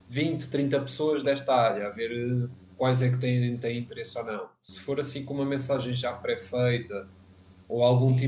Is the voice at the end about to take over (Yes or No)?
No